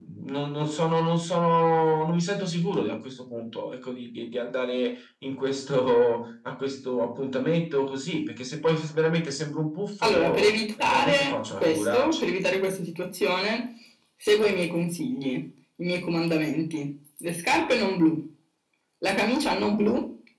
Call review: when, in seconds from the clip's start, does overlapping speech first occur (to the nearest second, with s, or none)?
10 s